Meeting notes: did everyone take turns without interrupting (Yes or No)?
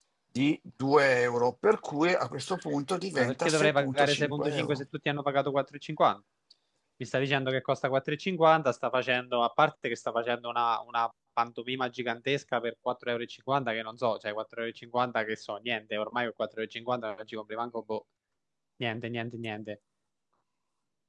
No